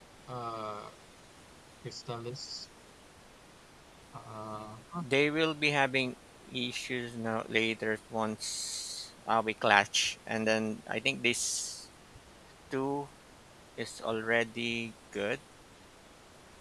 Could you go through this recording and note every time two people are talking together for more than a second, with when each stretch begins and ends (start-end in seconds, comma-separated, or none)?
none